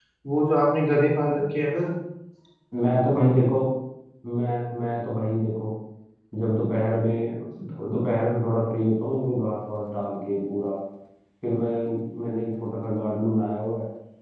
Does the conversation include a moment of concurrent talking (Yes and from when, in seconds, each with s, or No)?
No